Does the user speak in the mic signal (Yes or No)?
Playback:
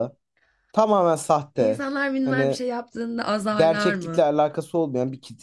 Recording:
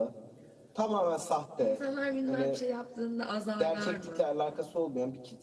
No